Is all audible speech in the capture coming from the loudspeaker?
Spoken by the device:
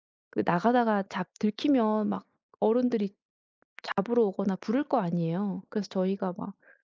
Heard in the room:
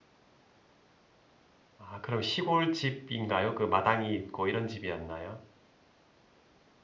No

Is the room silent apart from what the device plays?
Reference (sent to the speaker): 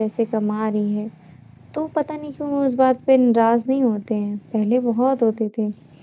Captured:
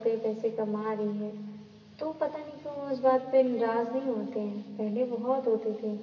Yes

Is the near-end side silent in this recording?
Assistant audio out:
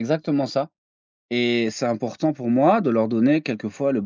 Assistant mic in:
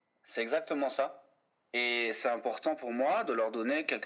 Yes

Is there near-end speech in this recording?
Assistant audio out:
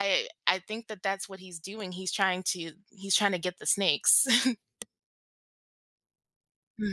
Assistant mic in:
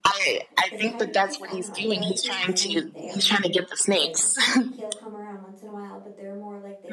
Yes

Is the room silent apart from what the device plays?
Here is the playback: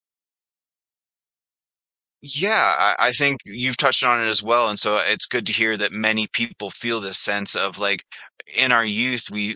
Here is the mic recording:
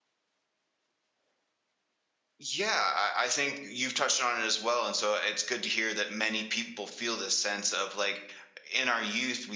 Yes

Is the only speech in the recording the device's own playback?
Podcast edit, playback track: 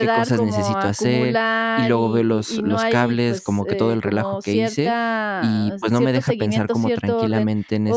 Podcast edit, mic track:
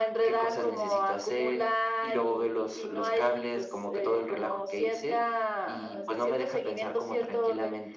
Yes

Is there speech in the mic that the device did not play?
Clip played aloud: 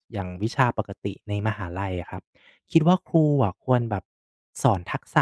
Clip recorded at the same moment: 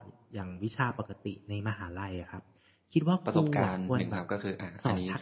Yes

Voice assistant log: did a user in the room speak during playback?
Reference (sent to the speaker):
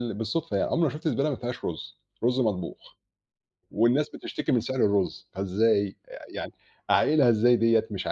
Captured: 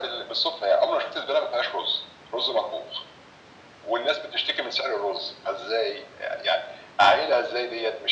No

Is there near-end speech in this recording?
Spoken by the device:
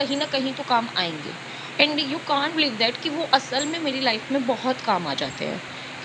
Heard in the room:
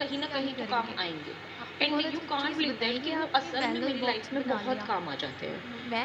Yes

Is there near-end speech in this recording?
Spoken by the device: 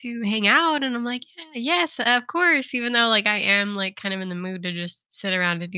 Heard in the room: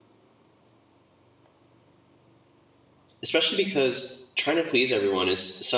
Yes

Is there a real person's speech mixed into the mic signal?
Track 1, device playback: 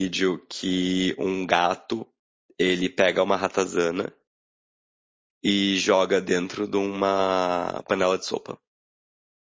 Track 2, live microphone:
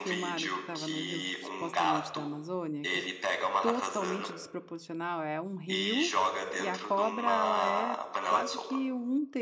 Yes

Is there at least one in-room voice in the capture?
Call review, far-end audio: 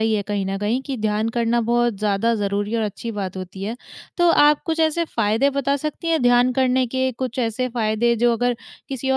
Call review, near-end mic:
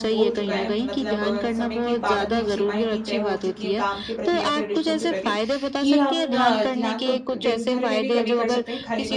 Yes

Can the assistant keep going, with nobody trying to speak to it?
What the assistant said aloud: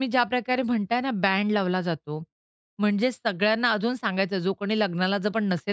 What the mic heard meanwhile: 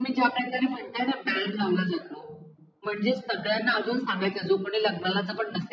Yes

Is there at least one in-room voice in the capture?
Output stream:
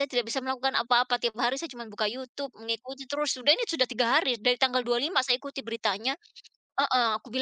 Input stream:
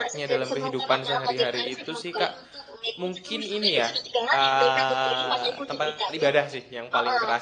Yes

